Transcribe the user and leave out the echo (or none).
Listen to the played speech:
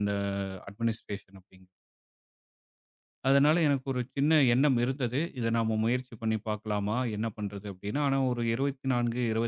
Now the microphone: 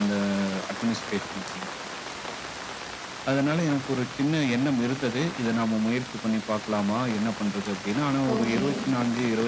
ஓகே.